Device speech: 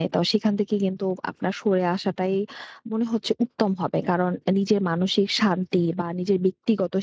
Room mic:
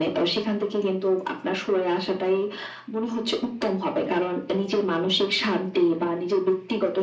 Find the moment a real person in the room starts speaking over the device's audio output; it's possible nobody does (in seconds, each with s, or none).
none